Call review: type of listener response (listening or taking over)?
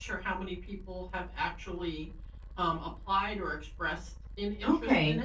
taking over